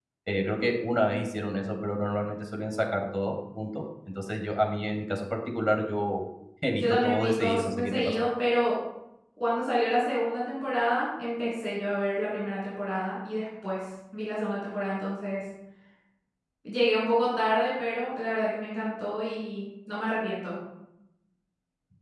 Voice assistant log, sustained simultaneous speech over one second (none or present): present